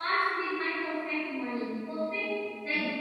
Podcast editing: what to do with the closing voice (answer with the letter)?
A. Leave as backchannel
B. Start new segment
A